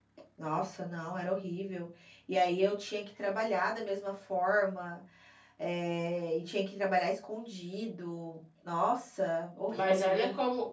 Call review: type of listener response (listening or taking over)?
taking over